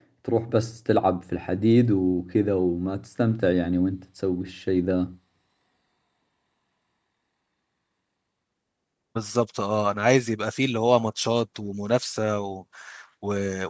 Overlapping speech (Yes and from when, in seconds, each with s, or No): No